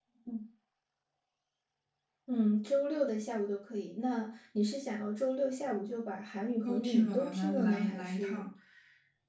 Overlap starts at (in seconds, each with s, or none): 6.7 s